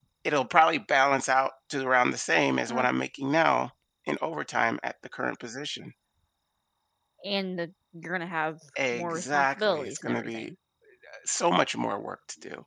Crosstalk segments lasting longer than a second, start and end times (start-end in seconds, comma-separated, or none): 8.9-10.5